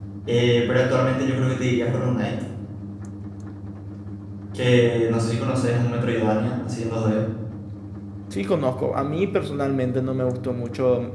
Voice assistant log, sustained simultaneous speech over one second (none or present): none